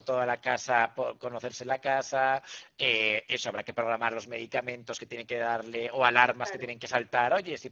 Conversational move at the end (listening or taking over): listening